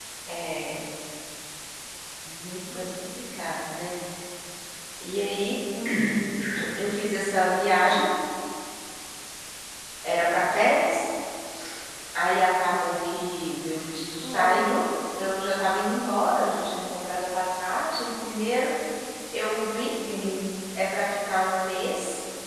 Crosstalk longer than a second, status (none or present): none